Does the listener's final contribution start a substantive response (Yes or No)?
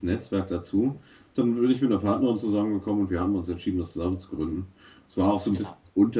No